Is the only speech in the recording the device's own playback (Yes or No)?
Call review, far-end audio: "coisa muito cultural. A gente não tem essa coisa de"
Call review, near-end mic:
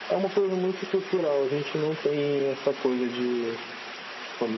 Yes